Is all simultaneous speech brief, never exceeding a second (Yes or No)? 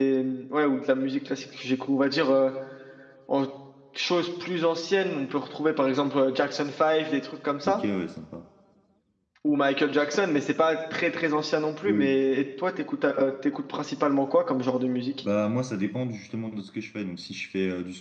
Yes